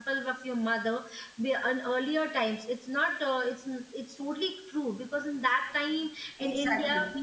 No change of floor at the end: Yes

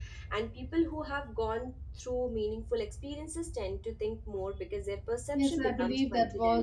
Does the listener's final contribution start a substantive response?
Yes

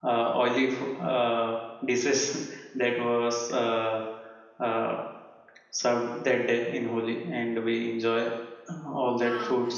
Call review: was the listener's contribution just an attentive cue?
No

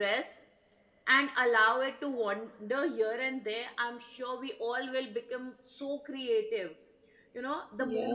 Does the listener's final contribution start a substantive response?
No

